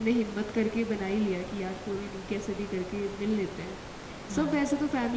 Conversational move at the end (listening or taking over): listening